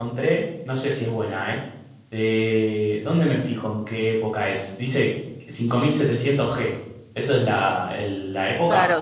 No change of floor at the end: No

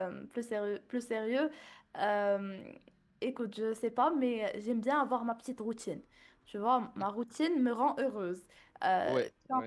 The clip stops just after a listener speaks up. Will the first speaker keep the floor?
Yes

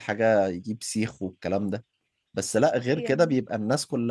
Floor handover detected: No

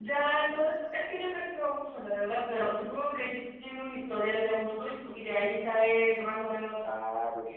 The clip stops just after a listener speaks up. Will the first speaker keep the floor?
No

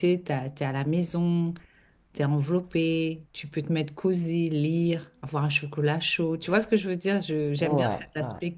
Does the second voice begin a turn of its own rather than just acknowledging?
No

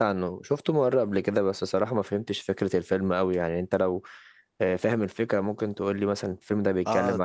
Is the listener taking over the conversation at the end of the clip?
Yes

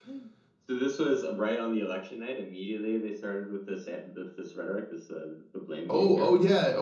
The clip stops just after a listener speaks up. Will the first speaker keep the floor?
No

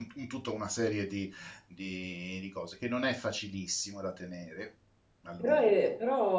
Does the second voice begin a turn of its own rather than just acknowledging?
Yes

